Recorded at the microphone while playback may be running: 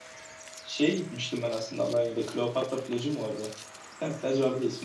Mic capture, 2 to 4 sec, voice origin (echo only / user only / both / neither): user only